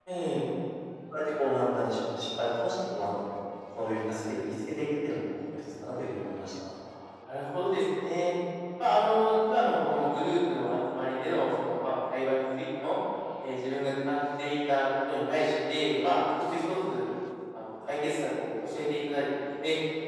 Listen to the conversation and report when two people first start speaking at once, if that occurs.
none

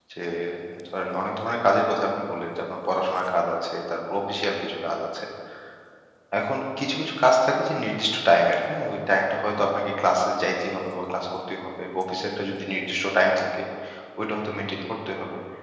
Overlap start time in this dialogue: none

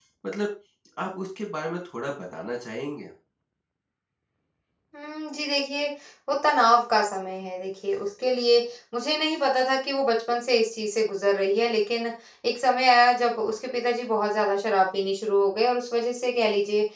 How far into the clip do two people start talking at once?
none

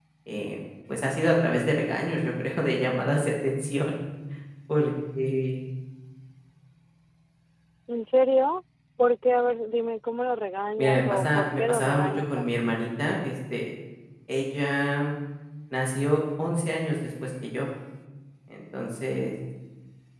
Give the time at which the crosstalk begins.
10.8 s

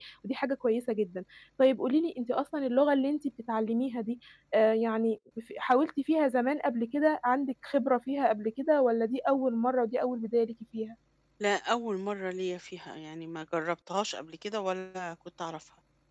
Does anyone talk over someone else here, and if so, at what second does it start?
none

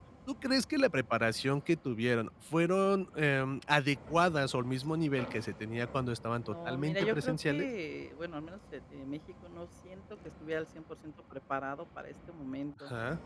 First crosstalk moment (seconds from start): 6.5 s

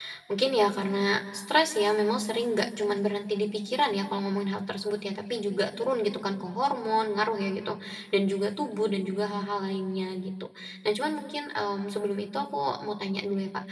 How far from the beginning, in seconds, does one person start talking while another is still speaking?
none

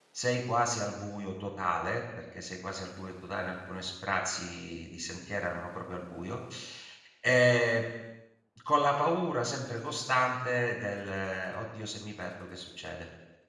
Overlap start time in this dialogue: none

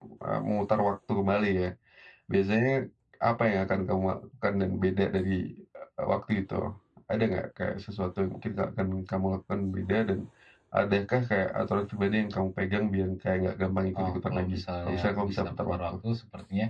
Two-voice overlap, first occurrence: 13.9 s

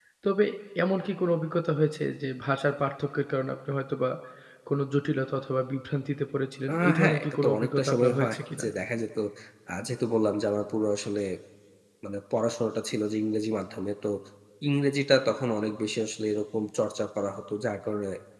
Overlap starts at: 6.7 s

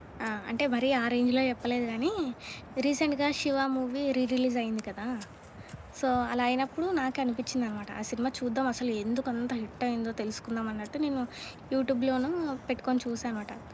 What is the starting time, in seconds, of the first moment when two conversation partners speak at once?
none

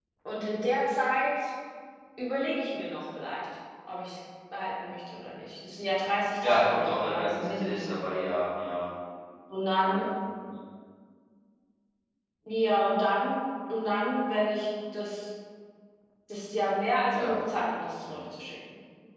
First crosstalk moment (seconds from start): 6.4 s

